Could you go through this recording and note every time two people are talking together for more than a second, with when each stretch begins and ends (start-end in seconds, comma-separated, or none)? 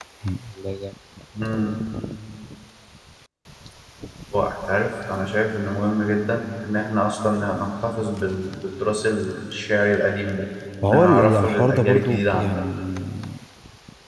10.9-12.6